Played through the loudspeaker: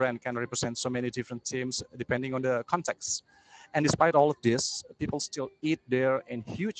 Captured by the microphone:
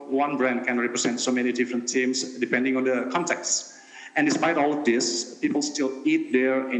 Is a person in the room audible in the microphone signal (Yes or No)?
No